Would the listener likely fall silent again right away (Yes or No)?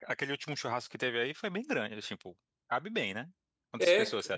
No